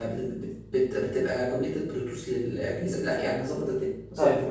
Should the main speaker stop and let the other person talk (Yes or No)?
Yes